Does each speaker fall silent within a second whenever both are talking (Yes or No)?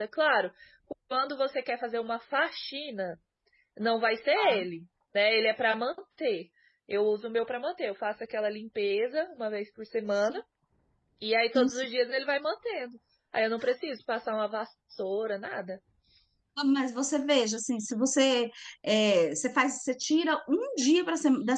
Yes